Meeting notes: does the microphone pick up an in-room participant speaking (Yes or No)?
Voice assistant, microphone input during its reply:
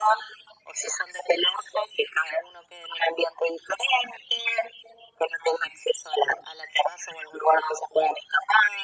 No